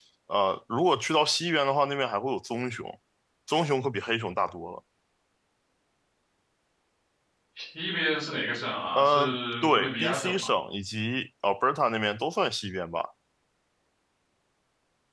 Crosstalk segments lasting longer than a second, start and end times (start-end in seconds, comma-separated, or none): 8.9-10.5